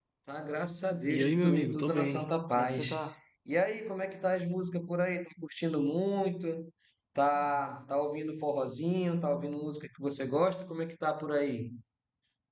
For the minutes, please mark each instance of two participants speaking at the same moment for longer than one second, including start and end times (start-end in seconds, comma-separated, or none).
1.1-2.8